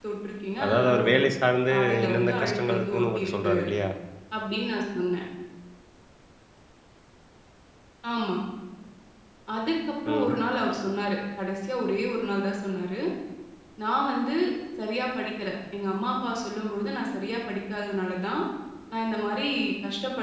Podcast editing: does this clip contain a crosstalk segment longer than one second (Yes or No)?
Yes